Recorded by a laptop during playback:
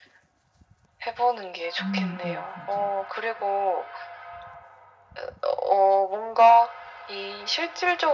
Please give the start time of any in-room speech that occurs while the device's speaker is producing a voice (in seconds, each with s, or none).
1.8 s